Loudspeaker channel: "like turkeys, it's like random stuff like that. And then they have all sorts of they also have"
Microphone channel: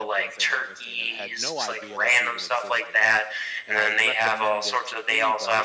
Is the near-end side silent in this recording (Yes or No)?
No